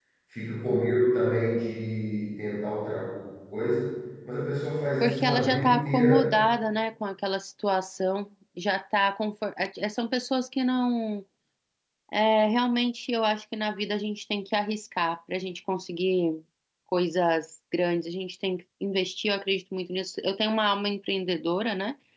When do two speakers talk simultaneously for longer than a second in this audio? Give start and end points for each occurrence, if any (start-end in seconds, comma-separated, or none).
5.0-6.3